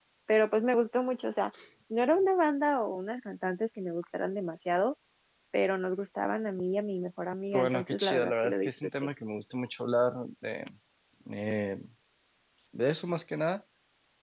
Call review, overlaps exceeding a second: present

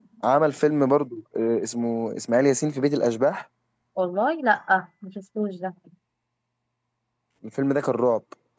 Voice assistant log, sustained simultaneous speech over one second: none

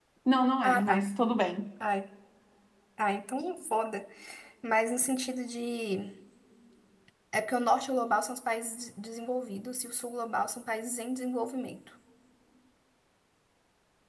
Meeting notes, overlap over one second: none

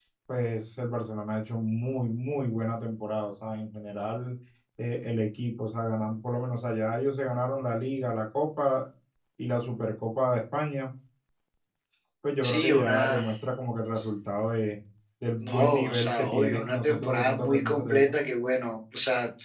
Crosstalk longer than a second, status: present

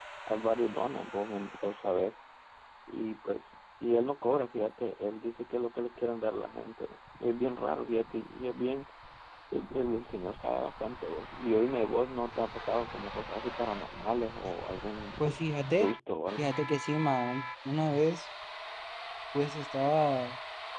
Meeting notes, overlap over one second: none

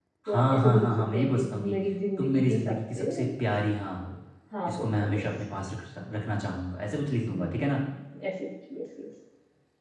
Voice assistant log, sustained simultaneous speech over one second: present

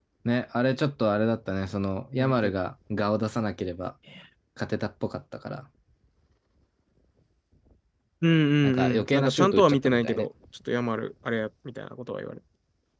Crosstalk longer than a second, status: present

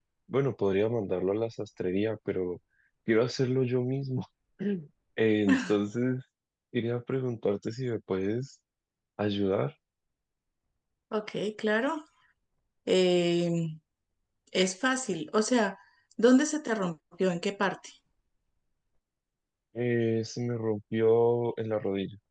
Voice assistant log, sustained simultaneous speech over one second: none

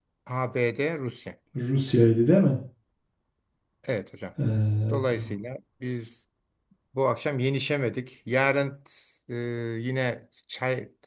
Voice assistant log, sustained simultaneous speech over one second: none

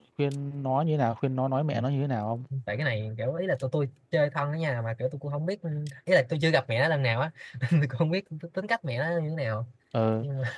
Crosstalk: none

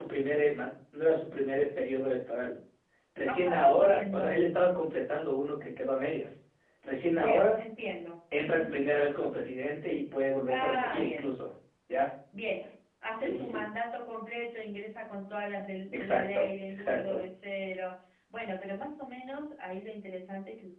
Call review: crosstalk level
present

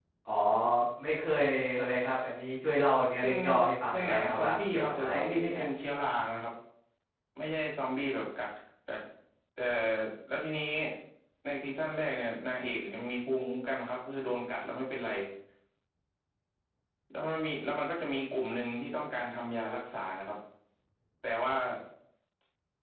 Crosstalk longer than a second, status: present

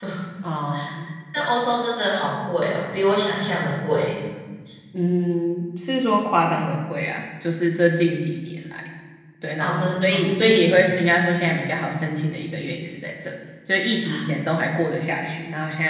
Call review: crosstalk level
present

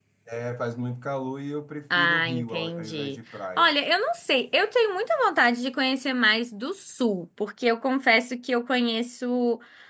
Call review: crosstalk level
present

